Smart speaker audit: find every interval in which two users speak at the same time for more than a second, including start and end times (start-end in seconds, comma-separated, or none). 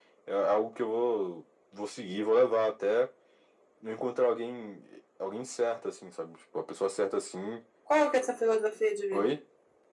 none